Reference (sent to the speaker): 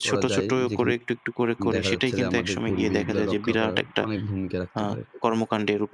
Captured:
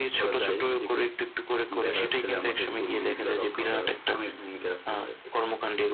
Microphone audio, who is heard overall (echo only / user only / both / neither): echo only